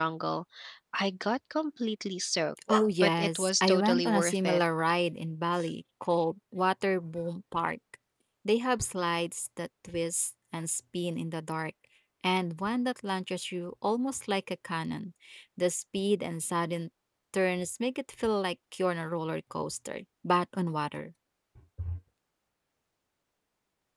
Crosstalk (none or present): present